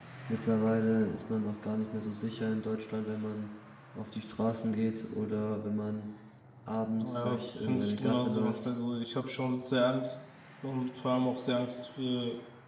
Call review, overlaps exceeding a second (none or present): present